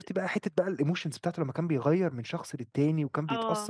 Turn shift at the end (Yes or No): No